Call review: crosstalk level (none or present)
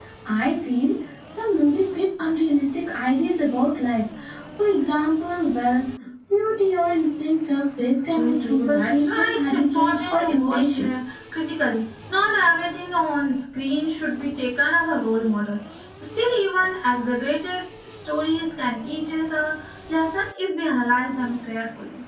present